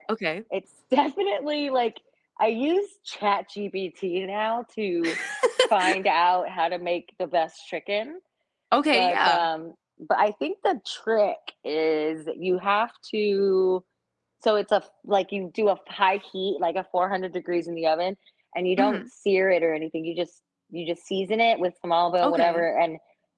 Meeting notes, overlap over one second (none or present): none